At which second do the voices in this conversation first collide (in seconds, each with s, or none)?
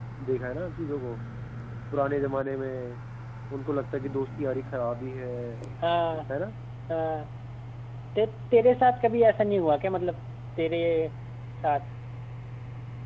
none